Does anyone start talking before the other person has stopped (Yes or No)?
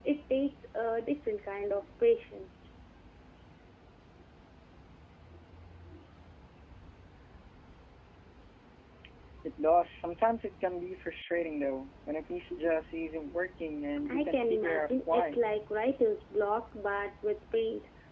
Yes